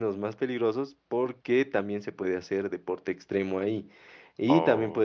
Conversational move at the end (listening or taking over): listening